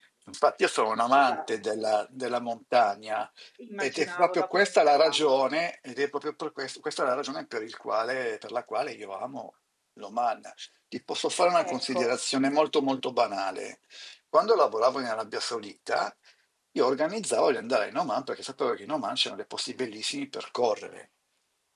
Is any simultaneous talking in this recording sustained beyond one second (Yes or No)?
Yes